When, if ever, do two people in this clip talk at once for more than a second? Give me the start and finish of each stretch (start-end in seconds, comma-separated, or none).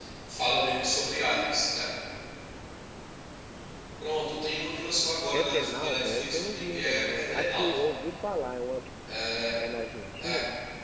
5.3-7.8